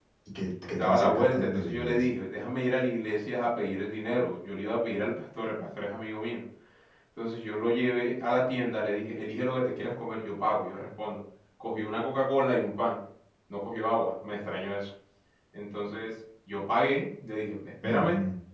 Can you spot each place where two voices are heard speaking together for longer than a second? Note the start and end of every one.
0.8-2.1

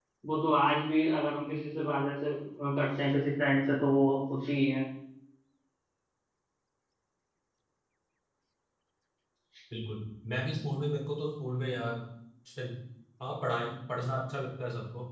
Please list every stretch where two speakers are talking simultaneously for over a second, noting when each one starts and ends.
none

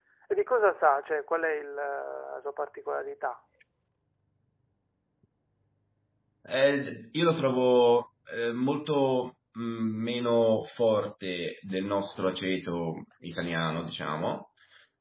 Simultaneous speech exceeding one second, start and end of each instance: none

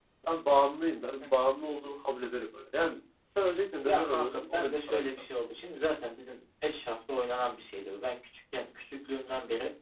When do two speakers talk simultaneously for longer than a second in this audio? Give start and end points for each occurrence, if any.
3.9-5.1

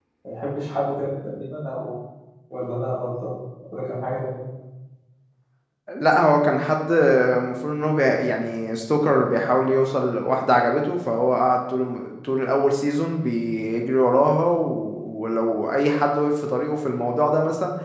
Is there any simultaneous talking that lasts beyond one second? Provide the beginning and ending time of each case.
none

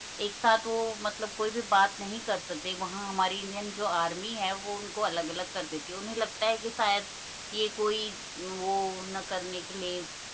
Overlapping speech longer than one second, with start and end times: none

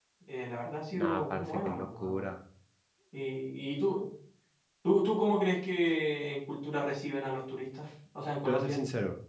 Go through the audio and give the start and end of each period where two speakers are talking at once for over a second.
0.9-2.2

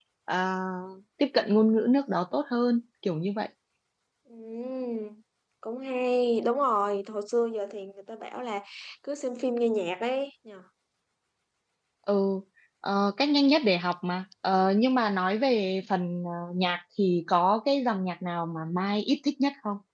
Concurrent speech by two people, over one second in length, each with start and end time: none

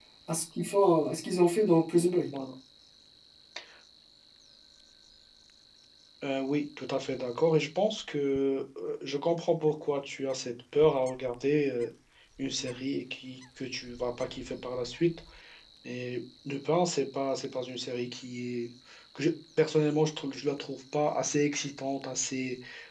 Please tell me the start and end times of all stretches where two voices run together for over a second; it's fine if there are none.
none

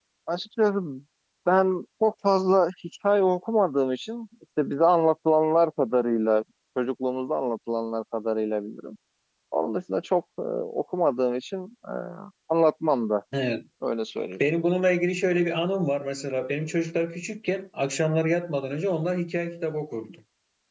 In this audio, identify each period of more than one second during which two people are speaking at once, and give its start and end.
none

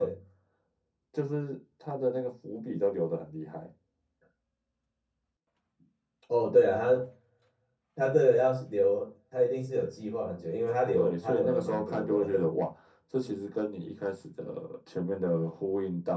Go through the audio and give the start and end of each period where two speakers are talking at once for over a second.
10.9-12.5

